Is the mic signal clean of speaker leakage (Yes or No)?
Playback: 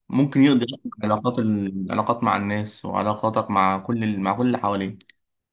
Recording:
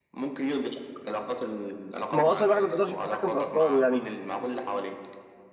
No